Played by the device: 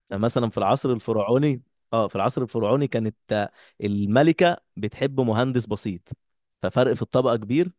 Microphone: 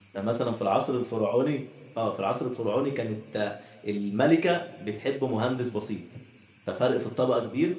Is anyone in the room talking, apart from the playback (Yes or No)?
No